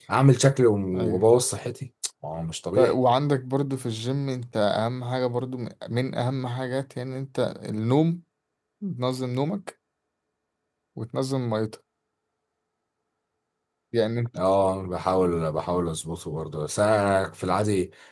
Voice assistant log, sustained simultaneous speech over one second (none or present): none